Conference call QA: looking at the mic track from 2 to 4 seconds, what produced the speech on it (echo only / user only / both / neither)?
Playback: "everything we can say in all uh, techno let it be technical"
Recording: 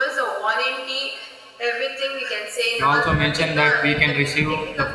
both